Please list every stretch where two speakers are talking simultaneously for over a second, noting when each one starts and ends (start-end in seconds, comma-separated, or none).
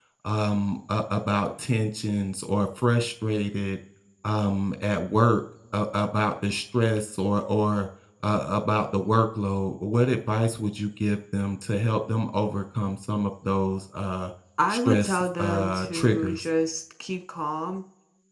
14.7-16.5